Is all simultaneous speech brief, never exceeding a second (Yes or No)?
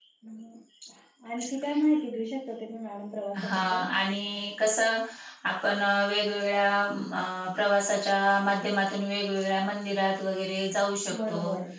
Yes